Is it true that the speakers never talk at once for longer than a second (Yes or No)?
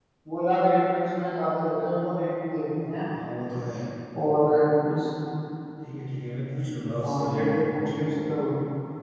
Yes